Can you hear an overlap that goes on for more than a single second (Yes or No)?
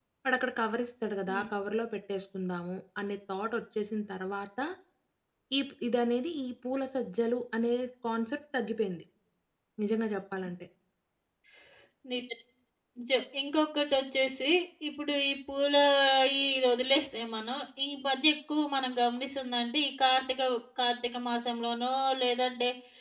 No